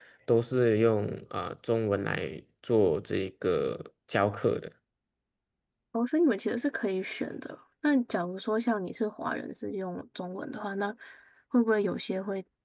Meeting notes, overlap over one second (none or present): none